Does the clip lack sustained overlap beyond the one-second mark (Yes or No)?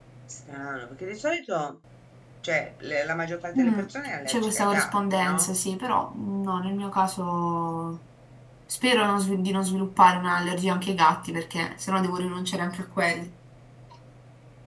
No